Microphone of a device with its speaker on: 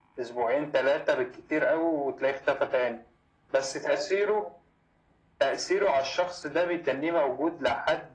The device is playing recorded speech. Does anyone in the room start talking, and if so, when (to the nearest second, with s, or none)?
none